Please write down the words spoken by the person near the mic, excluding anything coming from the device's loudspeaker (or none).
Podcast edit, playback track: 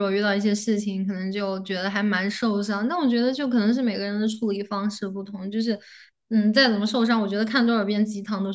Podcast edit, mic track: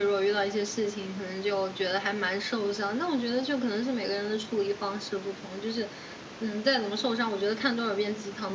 none